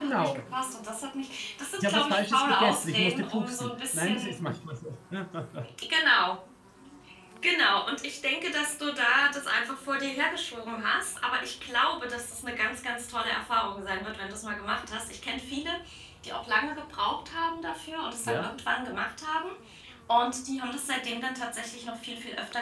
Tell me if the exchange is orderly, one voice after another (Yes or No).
No